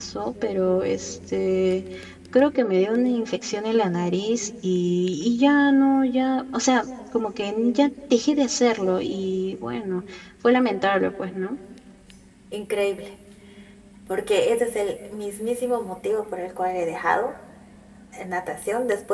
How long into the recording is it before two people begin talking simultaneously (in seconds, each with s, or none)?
none